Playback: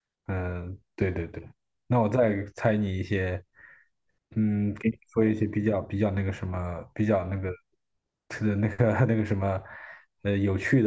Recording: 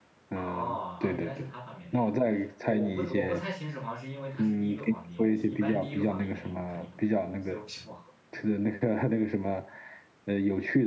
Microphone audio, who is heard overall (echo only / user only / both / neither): both